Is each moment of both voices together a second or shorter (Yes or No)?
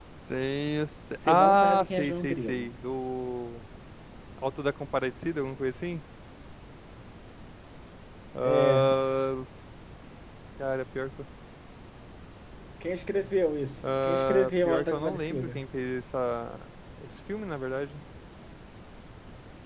No